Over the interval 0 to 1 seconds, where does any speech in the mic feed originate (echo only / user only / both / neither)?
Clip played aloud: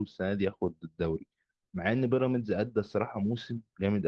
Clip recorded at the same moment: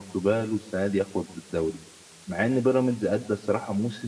echo only